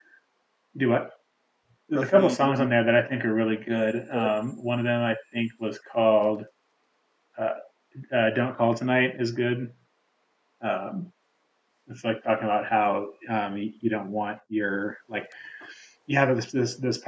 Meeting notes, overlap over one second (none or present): present